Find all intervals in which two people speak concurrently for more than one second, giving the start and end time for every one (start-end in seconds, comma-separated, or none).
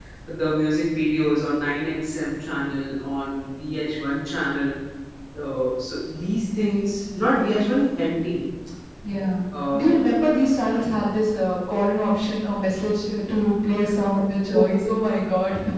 none